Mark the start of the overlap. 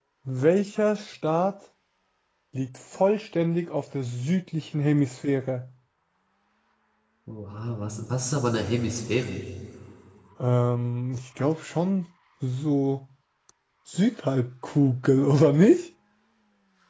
none

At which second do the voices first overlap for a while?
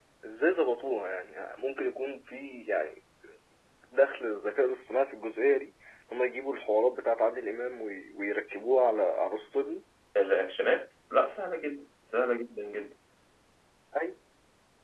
none

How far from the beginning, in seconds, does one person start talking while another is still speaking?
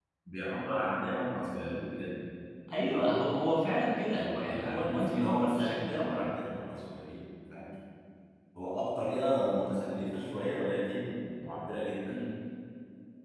4.1 s

